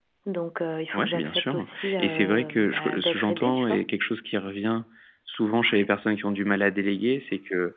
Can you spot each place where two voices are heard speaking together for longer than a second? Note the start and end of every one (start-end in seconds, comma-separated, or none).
0.9-3.8